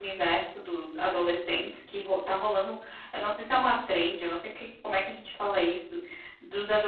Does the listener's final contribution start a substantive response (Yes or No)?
No